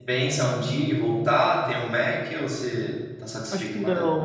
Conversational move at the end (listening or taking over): taking over